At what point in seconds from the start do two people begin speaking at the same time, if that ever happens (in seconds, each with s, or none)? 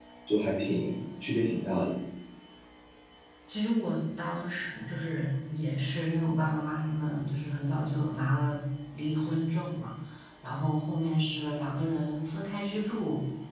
none